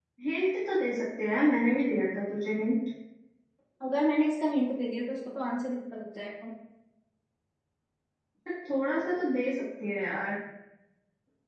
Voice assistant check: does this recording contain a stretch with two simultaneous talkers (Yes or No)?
No